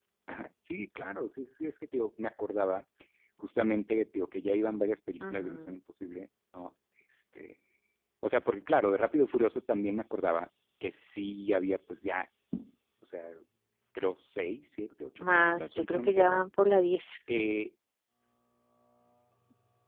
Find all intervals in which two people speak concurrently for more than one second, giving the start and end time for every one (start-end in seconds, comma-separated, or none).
15.2-16.4